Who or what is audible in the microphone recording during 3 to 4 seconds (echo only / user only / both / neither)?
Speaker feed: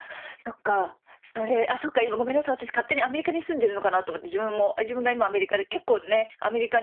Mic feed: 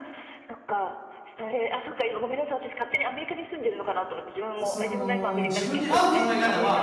echo only